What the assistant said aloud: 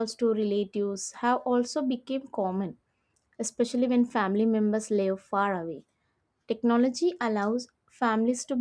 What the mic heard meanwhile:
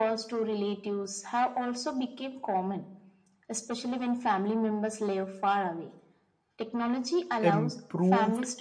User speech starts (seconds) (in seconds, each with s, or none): 7.4 s